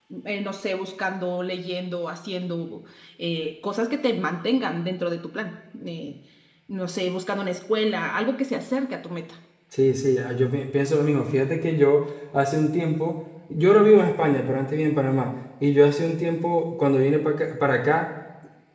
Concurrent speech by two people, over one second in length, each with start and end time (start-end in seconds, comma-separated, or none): none